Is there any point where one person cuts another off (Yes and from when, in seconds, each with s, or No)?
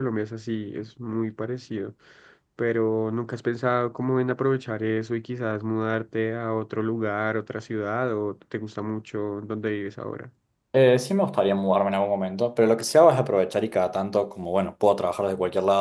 No